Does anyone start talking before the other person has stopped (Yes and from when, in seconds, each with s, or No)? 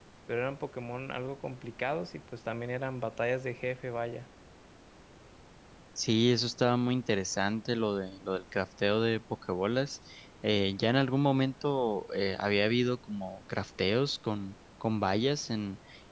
No